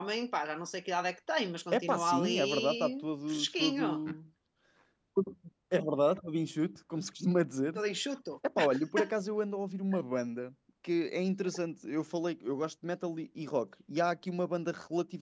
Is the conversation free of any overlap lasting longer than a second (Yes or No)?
No